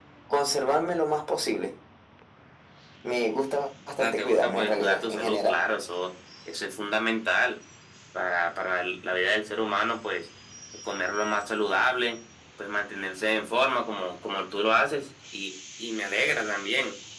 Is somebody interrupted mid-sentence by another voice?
Yes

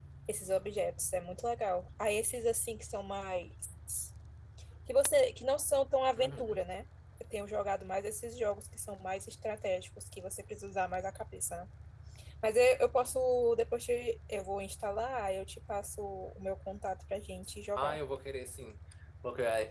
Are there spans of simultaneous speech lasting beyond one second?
No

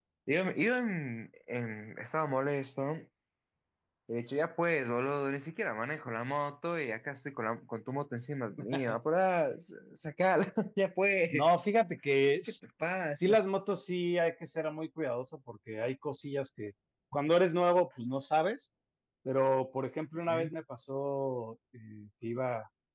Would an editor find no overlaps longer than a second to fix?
Yes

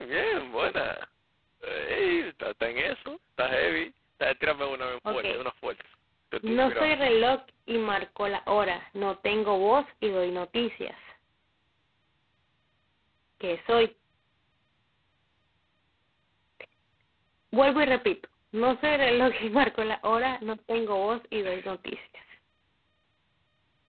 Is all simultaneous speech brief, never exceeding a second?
Yes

